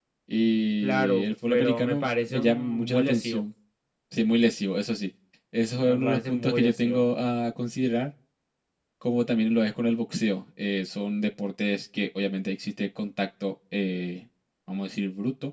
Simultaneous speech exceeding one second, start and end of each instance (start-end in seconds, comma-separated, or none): 0.8-3.4, 5.8-7.0